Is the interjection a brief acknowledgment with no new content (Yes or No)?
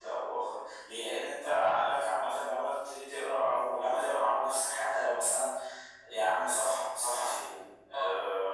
Yes